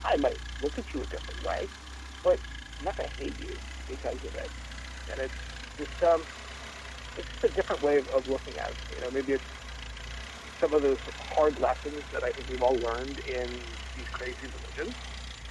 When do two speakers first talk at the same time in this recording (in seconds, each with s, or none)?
none